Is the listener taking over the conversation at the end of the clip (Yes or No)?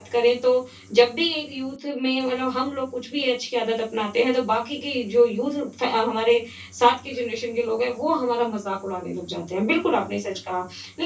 No